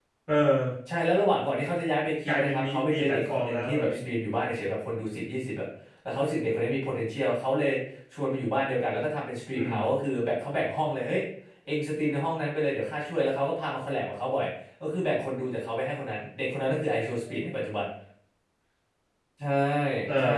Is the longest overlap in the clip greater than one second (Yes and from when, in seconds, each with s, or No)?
Yes, from 2.2 s